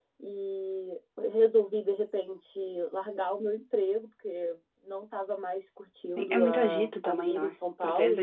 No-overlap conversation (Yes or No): No